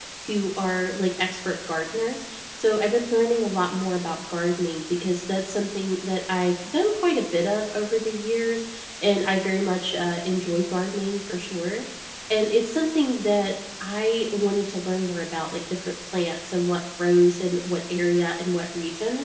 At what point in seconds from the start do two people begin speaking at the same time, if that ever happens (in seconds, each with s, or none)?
none